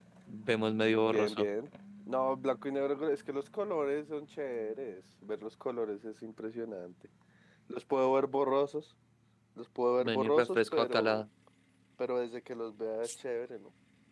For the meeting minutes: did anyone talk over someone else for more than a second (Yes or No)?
Yes